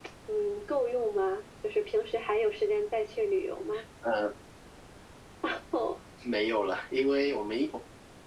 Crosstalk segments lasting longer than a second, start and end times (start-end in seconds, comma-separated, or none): none